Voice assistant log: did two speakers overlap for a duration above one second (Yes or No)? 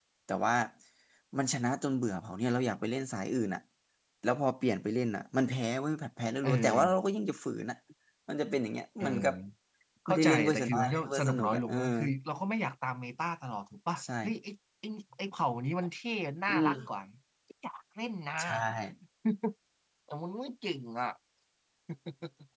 Yes